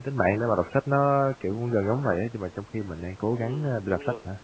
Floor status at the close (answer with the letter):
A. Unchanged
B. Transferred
B